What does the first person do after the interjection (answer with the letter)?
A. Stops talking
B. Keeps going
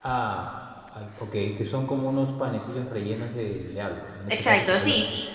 A